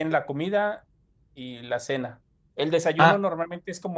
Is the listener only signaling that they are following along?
Yes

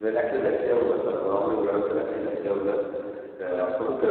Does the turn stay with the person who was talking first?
Yes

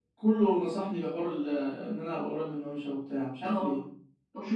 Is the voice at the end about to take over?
Yes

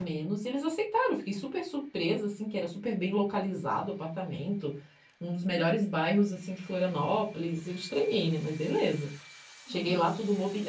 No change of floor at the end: Yes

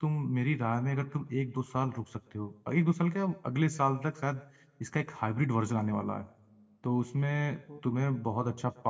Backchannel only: Yes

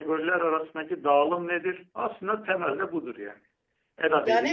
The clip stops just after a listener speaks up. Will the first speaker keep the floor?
No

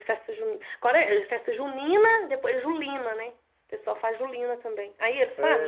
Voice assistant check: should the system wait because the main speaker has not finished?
No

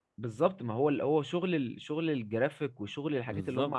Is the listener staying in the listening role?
Yes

